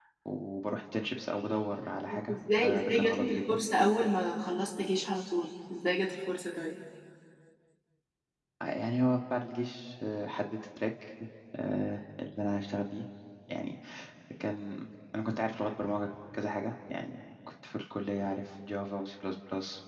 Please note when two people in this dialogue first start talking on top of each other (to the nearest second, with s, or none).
2 s